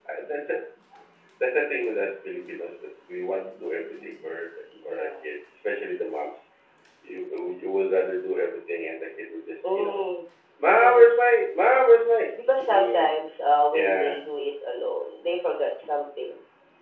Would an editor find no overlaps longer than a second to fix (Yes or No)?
Yes